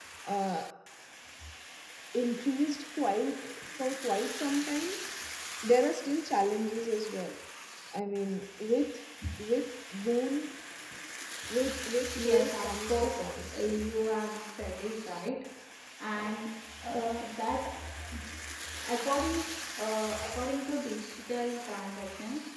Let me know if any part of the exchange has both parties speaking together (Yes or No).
Yes